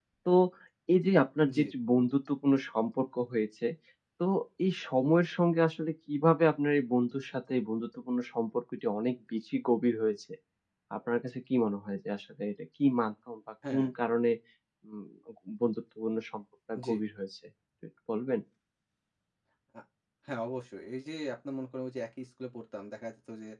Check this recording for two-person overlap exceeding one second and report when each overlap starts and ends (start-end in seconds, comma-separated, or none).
none